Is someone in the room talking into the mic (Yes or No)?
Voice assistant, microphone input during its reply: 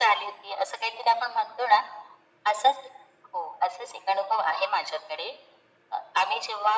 No